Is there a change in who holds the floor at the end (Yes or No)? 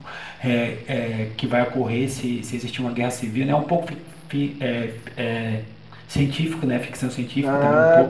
Yes